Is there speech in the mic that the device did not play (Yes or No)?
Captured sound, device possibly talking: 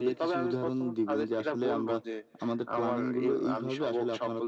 No